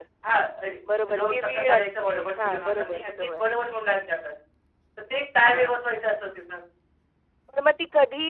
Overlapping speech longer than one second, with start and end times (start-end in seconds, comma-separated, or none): 1.2-3.4